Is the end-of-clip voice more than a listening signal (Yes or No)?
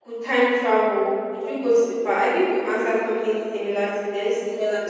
Yes